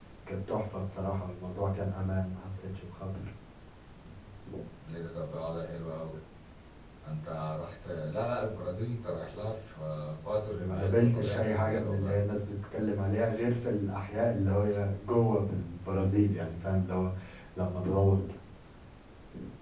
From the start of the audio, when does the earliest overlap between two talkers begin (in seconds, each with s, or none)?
10.5 s